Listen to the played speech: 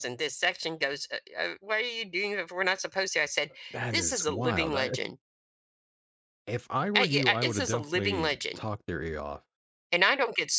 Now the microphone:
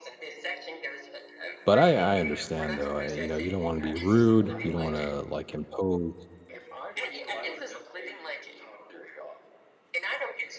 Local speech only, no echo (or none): But I I understand, though, I you know, you don't wanna be rude, you don't wanna, like, impose"